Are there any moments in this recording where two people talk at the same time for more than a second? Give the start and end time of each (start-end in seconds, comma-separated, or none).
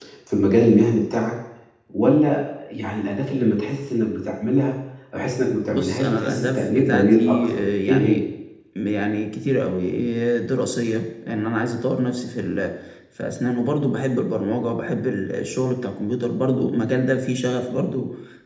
5.7-8.2